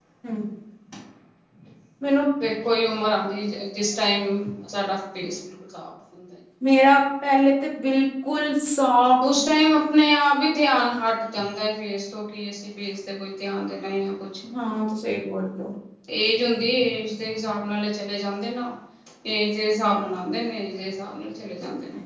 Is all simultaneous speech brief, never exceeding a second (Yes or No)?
Yes